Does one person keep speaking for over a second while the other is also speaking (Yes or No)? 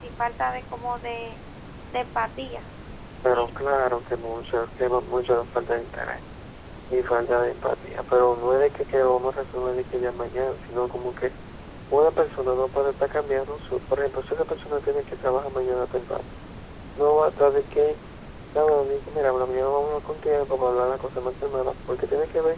No